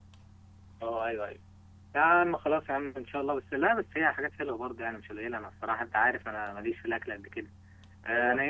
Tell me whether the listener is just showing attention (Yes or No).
Yes